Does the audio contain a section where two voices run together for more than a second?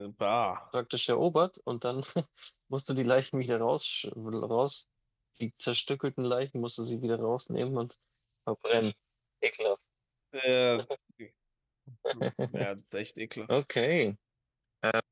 No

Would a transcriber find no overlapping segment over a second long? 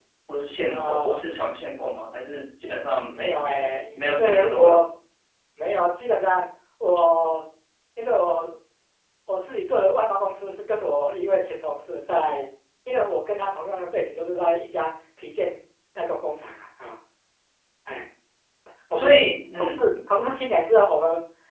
No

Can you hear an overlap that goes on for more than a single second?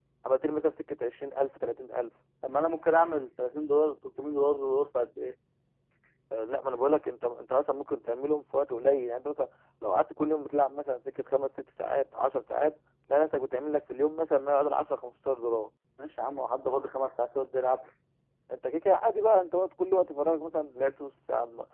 No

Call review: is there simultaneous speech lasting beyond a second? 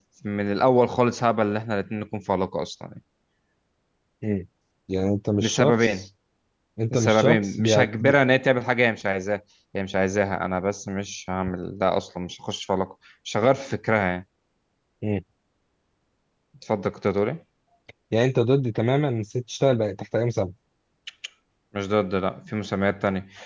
Yes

